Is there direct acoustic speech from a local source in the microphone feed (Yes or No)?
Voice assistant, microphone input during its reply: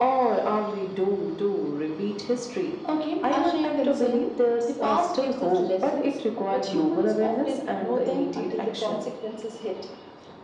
No